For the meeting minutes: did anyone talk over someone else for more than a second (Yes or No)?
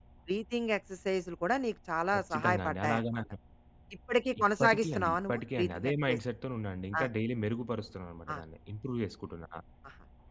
Yes